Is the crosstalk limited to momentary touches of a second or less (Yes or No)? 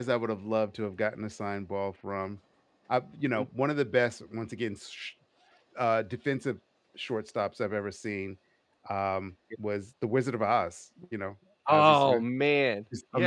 Yes